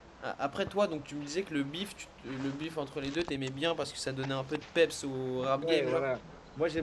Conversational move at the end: taking over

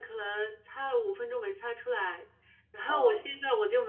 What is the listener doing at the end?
listening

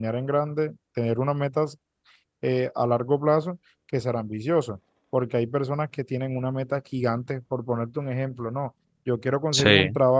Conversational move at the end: listening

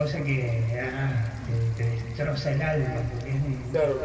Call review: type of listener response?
taking over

